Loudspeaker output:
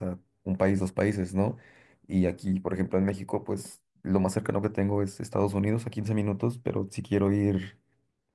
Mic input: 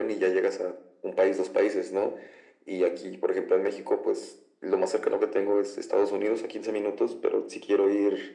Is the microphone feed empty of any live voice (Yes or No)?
Yes